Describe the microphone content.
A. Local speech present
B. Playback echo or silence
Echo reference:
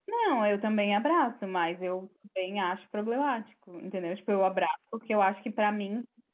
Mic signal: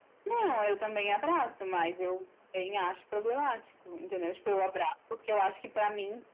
B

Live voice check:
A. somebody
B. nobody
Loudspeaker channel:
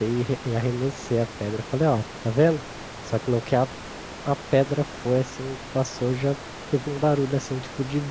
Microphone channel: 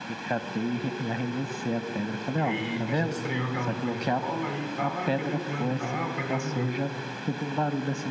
A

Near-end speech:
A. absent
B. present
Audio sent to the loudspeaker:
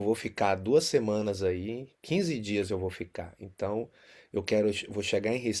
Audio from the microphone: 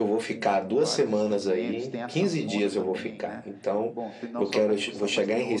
B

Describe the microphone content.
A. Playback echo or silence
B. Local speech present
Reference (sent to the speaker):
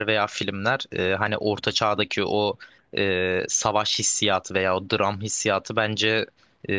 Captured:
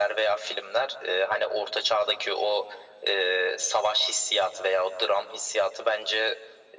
A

